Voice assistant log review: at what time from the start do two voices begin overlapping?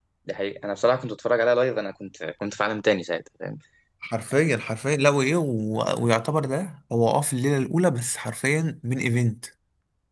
none

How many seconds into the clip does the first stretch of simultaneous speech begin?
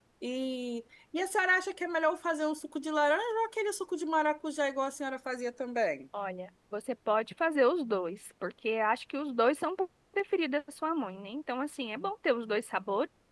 none

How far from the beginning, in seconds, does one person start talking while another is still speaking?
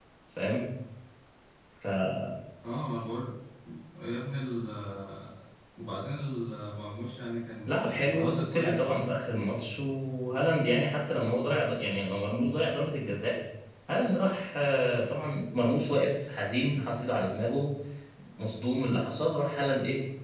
7.7 s

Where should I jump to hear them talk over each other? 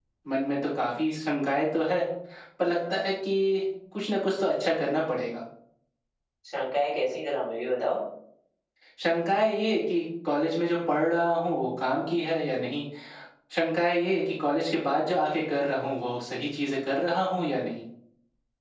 none

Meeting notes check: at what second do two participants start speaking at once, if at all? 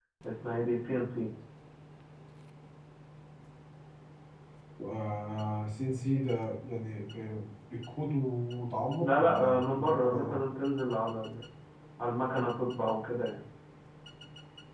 9.0 s

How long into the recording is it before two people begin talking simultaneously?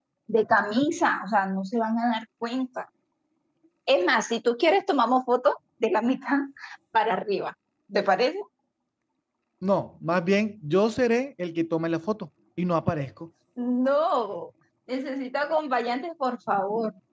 none

